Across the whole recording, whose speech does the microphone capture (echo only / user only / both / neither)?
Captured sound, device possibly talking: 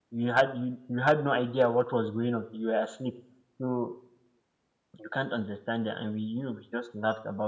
user only